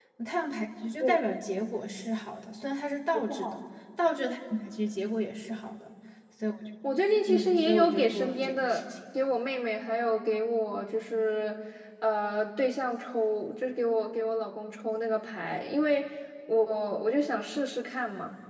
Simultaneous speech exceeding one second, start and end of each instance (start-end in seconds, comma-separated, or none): 7.3-8.9